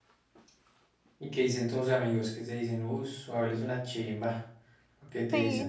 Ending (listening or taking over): taking over